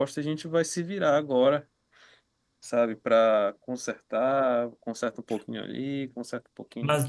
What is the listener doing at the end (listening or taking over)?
taking over